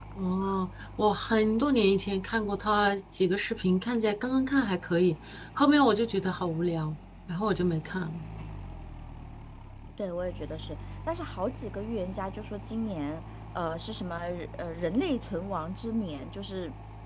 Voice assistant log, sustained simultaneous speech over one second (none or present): none